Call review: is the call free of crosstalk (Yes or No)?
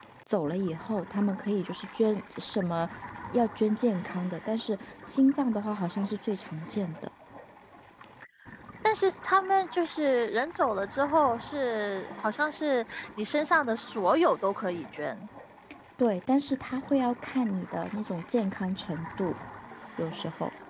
Yes